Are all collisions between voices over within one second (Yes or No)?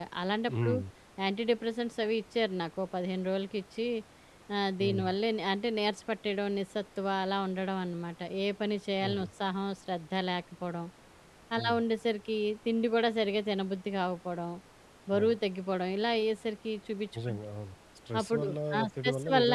No